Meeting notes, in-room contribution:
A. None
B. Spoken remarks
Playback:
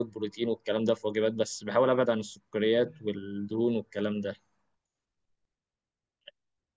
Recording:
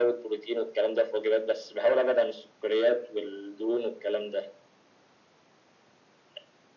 A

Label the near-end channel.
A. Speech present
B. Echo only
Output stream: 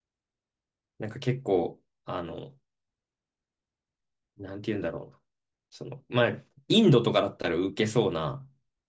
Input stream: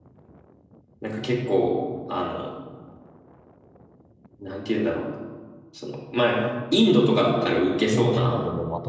A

